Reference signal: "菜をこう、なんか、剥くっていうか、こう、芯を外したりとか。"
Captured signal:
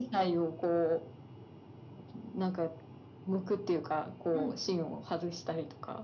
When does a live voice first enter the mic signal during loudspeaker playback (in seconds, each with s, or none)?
4.3 s